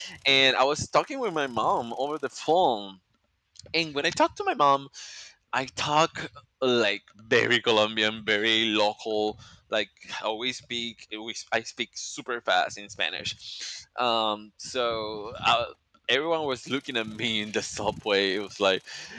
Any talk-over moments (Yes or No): No